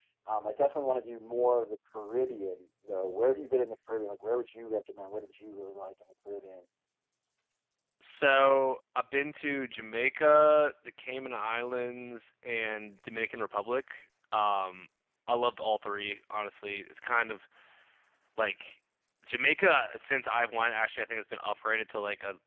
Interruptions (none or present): none